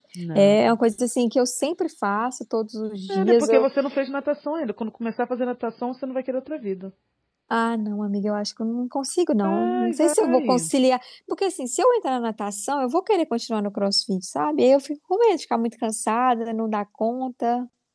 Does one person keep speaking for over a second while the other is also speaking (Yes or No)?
Yes